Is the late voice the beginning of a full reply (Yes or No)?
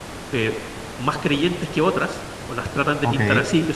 No